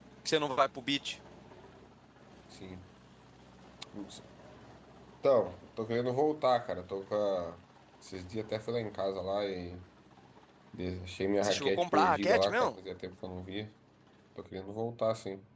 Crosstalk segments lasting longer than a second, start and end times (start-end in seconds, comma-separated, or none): 11.4-12.7